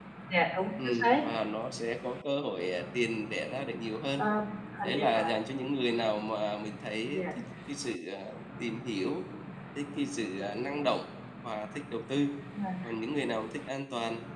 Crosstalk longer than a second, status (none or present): none